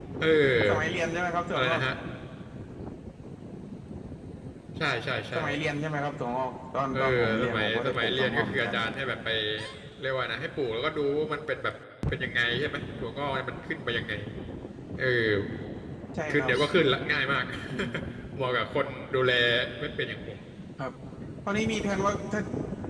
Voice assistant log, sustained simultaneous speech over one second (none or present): present